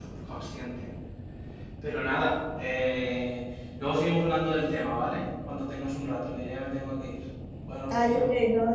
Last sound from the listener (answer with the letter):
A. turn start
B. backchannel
A